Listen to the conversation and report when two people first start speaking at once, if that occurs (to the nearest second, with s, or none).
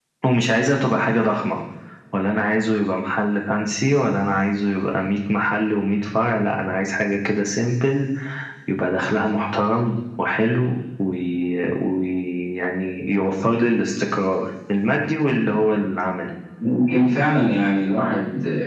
none